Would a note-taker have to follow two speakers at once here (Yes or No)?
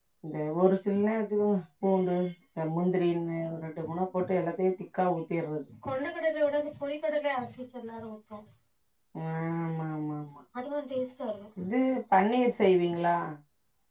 No